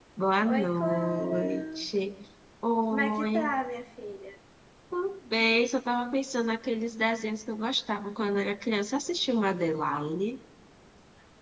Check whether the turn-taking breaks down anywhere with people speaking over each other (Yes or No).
Yes